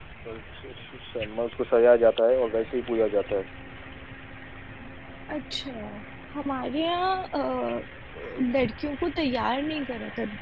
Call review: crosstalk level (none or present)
none